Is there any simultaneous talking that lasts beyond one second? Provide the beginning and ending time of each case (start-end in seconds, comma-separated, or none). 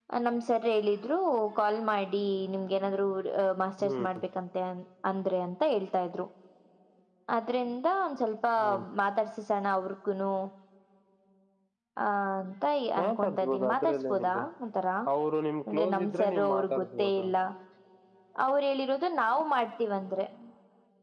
13.0-14.4, 15.7-17.2